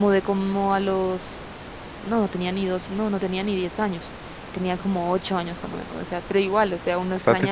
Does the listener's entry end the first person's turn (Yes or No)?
No